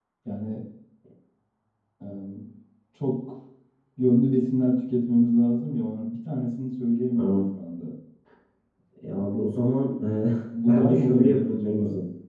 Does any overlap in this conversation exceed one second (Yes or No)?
Yes